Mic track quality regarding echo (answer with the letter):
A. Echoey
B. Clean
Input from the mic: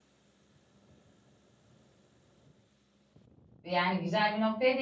B